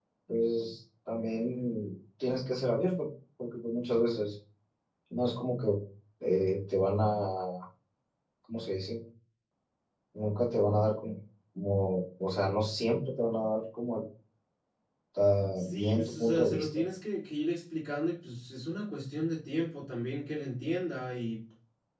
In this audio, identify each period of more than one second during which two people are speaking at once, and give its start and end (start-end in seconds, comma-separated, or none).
15.6-16.8